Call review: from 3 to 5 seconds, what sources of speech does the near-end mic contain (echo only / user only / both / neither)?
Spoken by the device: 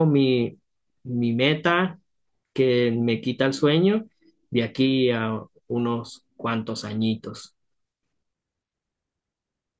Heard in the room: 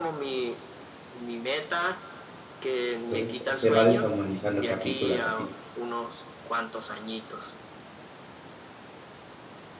both